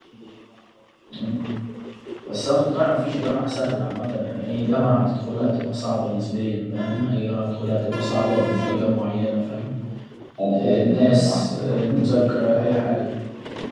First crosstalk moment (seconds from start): 10.5 s

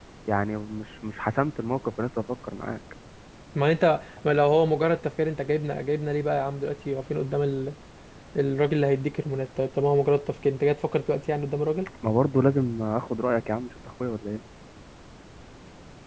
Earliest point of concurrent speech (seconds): none

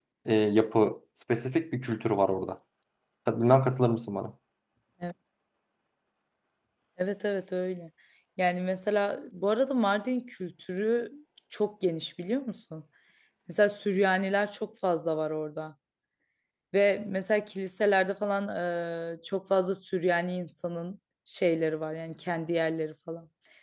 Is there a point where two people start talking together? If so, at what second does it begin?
none

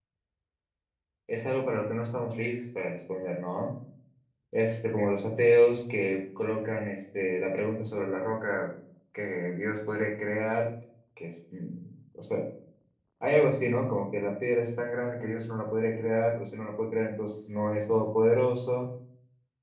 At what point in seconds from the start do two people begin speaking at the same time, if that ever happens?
none

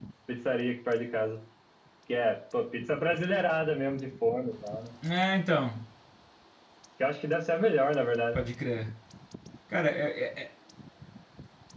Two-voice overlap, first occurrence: none

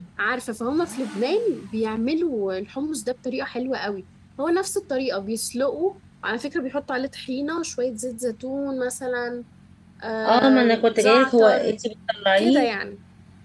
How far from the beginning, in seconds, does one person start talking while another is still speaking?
10.2 s

